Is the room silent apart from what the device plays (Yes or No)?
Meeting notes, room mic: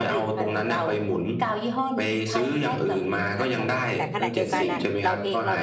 No